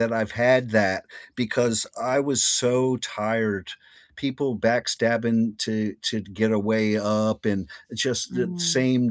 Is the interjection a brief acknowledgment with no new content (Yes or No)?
Yes